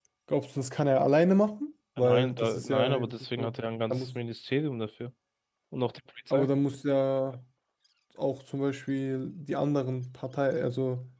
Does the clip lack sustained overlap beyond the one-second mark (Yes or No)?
No